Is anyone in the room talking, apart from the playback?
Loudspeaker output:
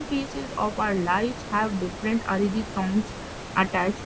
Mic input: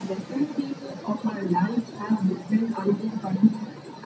No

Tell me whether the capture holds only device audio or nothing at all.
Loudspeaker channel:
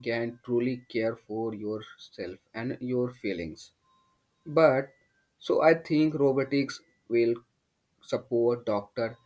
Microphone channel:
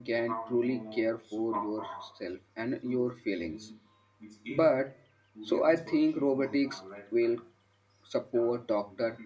No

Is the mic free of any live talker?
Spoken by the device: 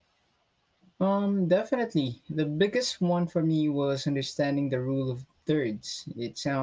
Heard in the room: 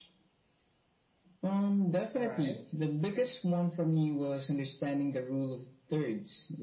No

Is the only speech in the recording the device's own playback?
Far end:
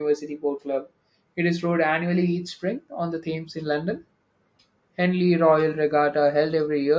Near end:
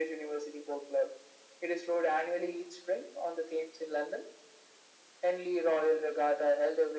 Yes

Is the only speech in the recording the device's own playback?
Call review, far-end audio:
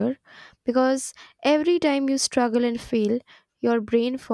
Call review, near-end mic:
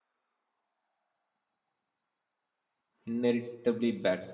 No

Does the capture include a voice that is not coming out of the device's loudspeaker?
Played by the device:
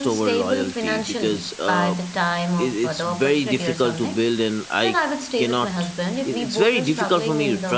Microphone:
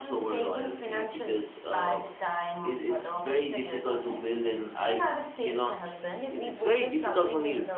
Yes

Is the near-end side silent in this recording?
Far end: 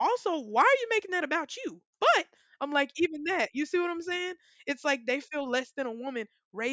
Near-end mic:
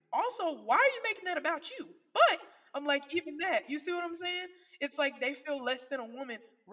Yes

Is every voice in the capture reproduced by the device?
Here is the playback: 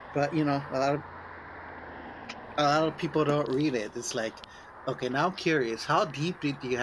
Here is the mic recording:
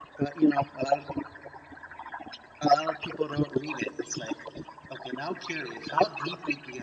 Yes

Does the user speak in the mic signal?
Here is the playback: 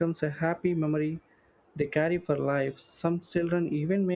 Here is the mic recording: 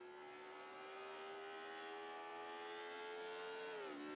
No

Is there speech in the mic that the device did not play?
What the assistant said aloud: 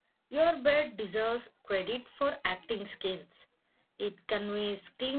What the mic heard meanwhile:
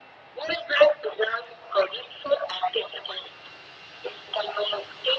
No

